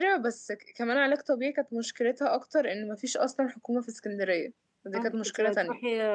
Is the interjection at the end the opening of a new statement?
Yes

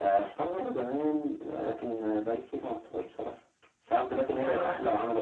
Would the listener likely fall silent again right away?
Yes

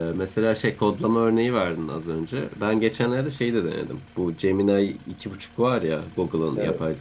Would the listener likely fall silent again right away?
Yes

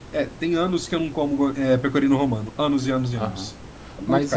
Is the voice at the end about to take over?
Yes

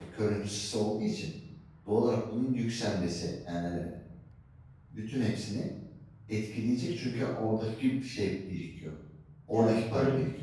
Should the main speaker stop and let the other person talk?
Yes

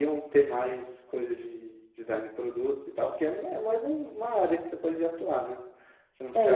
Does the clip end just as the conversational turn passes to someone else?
Yes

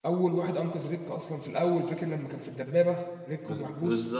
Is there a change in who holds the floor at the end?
Yes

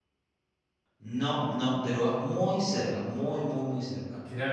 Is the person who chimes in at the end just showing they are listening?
No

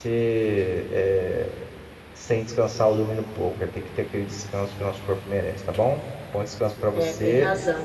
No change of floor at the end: No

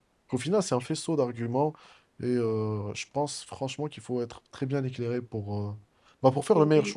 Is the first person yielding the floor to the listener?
Yes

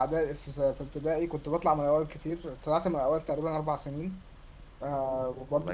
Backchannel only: Yes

